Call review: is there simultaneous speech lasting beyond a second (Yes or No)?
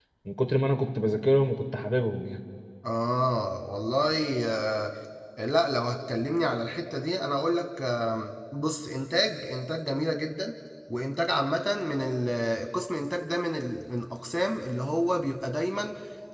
No